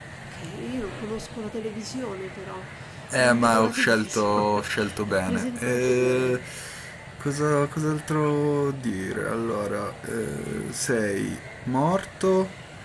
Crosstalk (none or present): present